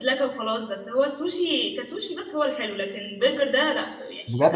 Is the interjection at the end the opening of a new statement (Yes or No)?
Yes